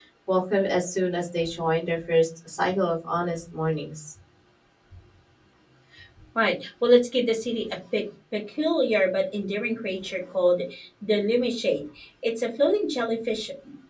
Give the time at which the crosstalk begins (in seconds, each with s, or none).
none